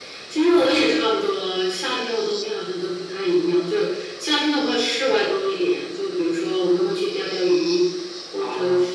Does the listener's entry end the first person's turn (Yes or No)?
No